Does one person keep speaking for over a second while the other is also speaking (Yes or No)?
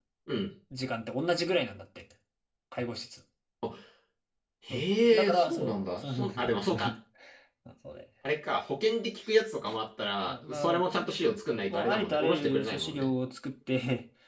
Yes